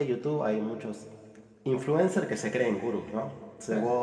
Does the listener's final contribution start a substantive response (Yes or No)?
No